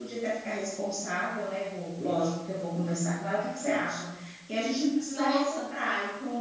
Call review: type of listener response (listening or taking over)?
listening